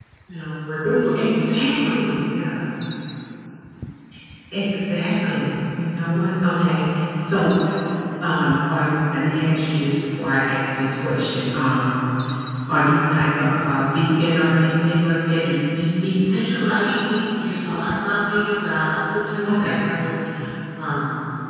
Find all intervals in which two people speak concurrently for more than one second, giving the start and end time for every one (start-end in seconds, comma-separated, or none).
0.8-2.1